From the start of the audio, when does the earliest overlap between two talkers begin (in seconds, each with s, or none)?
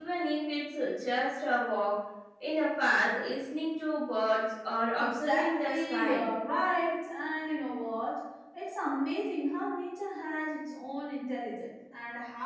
5.0 s